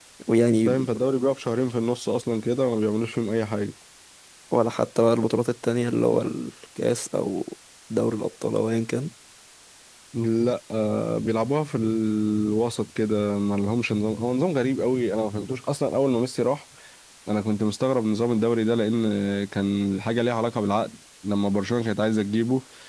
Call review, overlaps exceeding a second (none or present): none